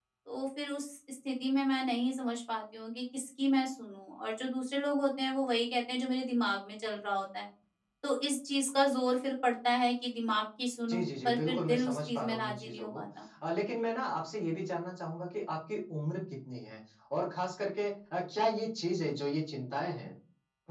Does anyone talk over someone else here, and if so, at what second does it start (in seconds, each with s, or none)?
10.9 s